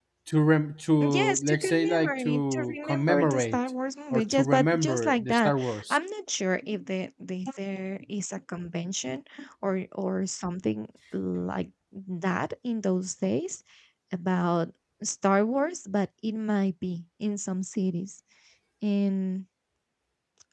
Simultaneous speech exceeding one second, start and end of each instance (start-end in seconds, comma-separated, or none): 1.0-3.6, 4.1-6.0